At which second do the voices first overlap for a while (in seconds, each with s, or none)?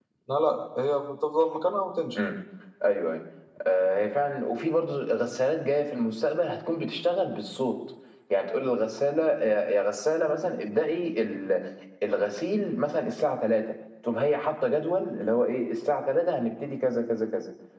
none